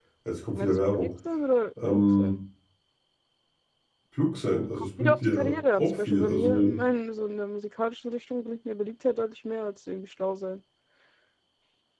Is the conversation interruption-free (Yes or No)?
No